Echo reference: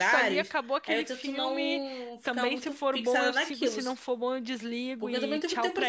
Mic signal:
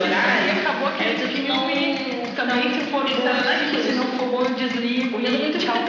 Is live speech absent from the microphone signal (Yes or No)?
Yes